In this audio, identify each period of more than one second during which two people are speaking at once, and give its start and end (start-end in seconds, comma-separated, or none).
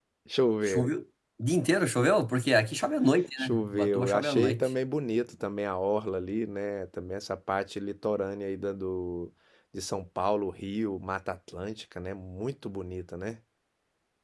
3.4-4.7